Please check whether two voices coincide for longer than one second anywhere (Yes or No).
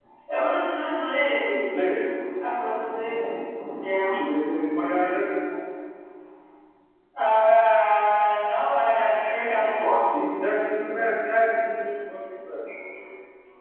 No